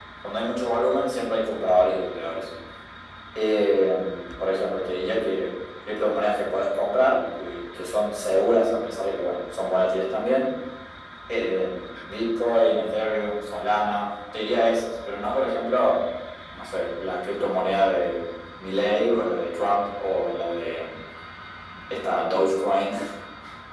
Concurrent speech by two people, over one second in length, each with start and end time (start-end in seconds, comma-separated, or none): none